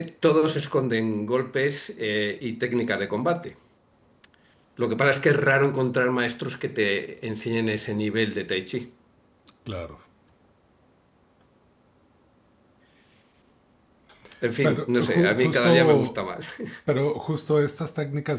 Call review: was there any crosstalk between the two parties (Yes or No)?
Yes